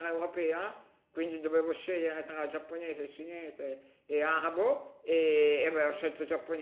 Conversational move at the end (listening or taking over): listening